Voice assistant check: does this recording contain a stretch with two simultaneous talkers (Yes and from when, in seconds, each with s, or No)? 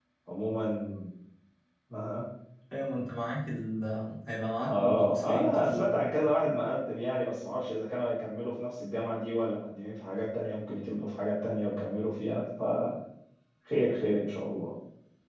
Yes, from 4.6 s